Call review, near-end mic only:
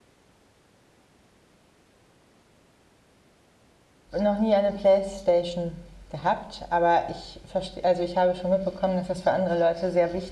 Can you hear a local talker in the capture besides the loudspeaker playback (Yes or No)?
Yes